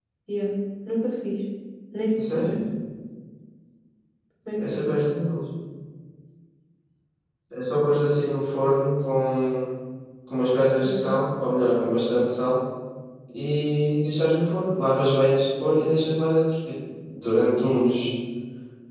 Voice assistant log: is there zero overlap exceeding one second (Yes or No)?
Yes